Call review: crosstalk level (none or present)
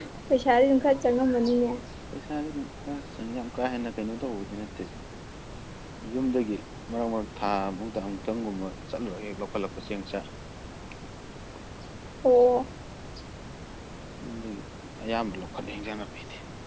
none